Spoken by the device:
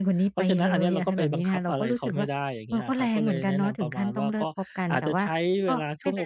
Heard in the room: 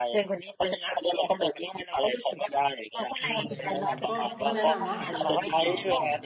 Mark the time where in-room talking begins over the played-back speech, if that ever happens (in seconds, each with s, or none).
3.2 s